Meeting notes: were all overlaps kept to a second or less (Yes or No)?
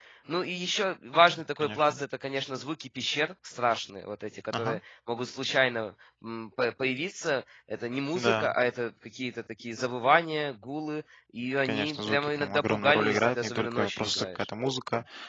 No